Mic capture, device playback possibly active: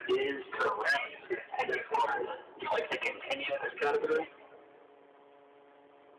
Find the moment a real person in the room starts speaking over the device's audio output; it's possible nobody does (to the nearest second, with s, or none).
none